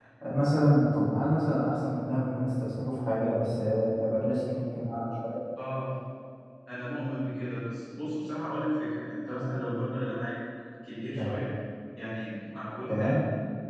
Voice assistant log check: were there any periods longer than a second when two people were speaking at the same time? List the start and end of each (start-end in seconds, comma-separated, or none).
none